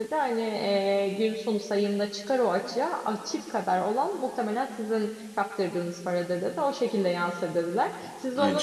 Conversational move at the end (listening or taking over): listening